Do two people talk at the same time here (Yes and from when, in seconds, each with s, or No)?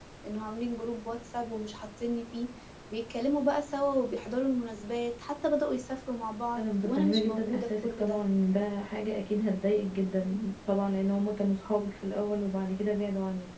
Yes, from 6.5 s